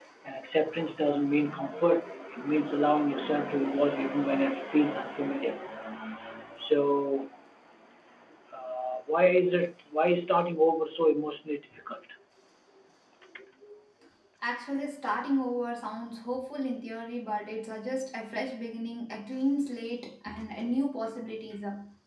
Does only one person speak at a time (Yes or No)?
Yes